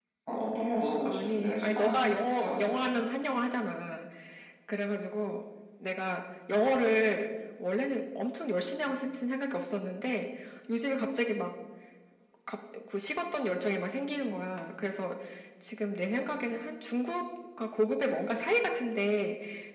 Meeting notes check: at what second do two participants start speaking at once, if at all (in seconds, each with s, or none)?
1.0 s